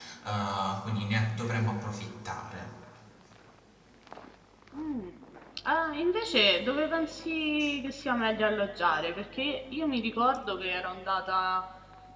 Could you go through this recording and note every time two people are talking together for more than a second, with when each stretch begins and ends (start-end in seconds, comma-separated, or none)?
none